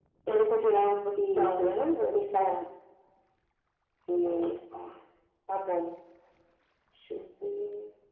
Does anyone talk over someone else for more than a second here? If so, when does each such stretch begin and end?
1.2-2.6

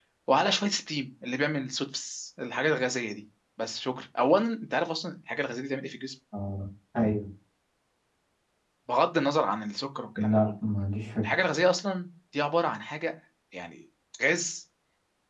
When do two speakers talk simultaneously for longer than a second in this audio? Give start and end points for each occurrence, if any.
none

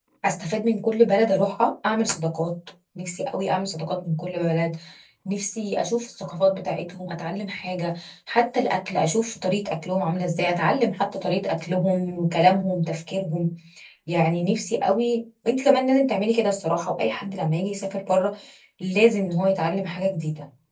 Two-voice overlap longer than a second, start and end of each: none

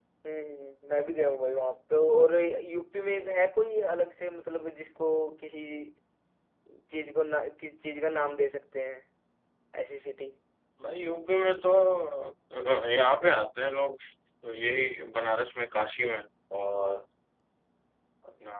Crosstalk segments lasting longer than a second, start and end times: none

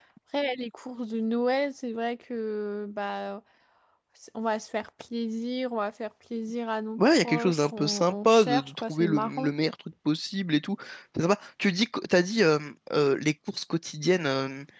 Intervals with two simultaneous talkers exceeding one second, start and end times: 7.0-9.5

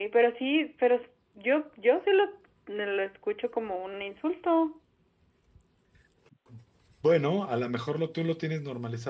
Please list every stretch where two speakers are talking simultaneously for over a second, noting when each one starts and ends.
none

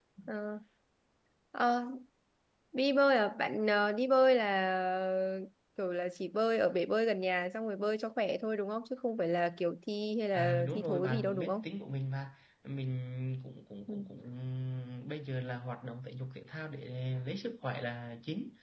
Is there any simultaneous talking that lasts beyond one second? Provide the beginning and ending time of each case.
10.3-11.6

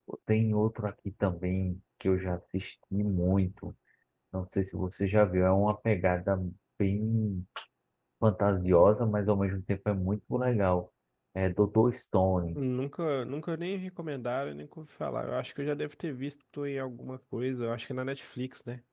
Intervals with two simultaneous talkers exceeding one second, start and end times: none

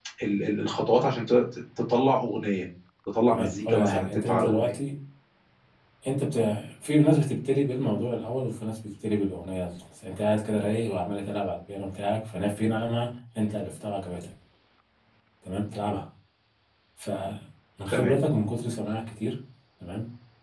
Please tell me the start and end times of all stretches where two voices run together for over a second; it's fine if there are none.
3.3-4.7

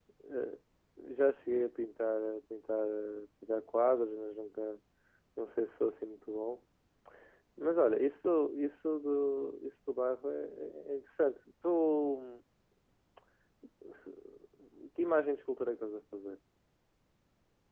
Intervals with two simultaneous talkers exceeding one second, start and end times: none

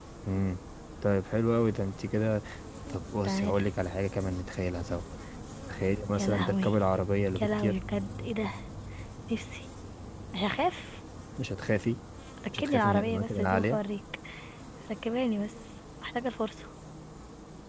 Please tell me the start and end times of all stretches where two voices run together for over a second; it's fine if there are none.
12.6-13.8

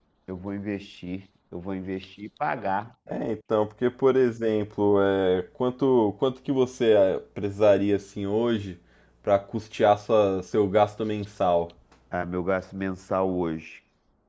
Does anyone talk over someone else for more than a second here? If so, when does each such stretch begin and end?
none

